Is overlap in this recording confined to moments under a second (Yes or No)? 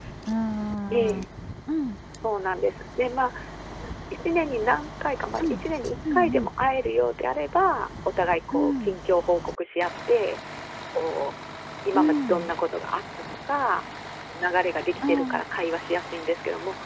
Yes